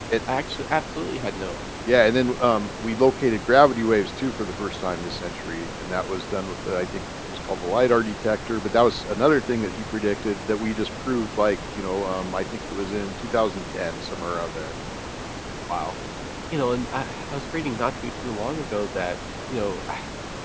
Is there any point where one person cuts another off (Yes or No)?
No